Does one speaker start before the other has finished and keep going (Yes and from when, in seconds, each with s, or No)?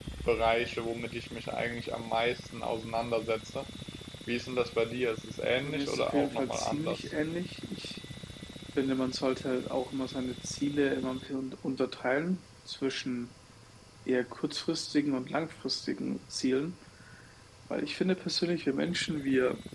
Yes, from 5.6 s